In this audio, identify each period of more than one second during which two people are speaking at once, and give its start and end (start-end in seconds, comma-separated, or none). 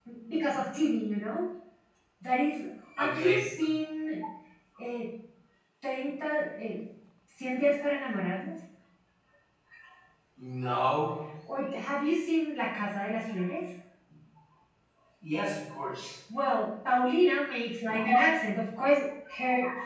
none